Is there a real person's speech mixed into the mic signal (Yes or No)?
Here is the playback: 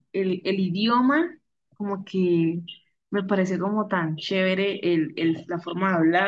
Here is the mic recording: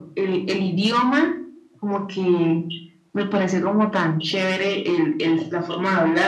No